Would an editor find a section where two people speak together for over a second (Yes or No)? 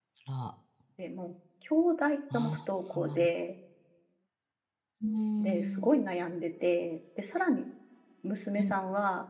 No